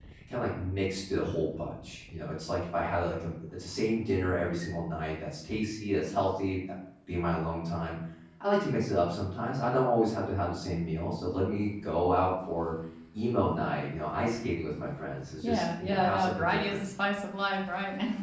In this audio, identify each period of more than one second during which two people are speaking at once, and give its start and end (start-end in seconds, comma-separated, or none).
15.4-16.8